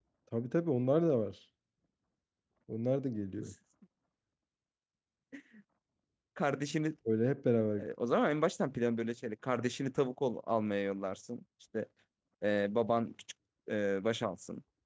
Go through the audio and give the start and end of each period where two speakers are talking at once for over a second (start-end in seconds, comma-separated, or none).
none